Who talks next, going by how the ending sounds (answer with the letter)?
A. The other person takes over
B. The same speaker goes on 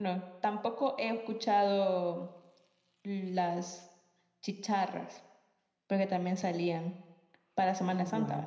A